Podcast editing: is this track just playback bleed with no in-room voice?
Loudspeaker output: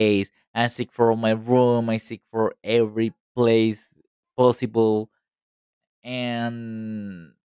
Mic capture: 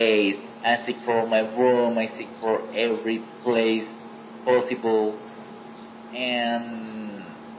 Yes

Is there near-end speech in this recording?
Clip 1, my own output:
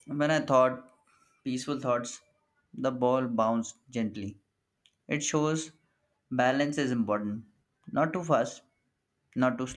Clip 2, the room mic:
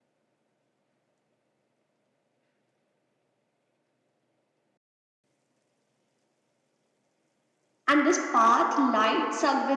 Yes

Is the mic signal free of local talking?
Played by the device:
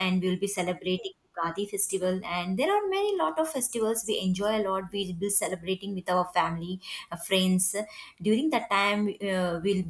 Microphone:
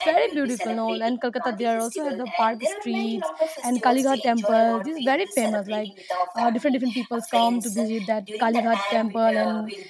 No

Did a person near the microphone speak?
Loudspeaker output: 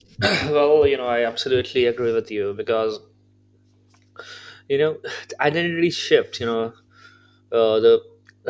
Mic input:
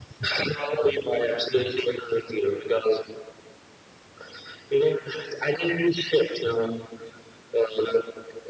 No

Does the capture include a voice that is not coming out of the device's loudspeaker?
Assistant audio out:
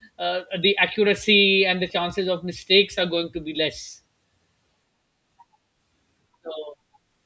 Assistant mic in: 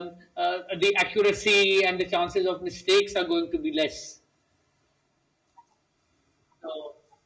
No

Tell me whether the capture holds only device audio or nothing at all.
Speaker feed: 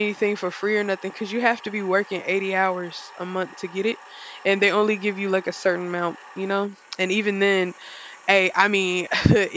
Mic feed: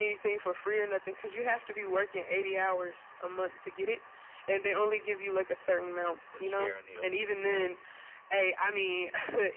No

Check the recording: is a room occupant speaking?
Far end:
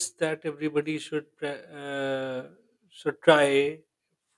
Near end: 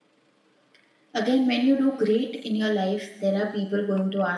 Yes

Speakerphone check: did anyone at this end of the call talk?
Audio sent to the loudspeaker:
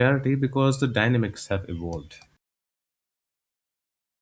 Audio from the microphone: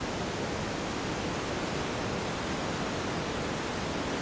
No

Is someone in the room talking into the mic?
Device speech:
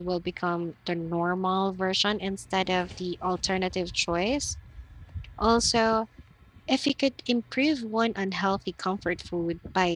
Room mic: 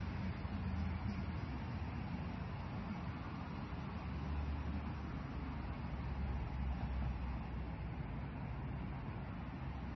No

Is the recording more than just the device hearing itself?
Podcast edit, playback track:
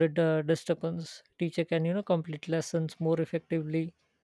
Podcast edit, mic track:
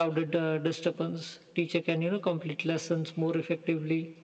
No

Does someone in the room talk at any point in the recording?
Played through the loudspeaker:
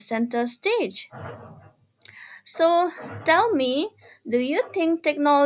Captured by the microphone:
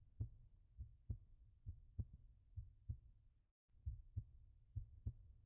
No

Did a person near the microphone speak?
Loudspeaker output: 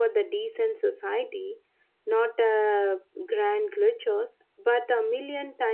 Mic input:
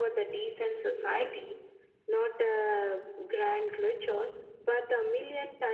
No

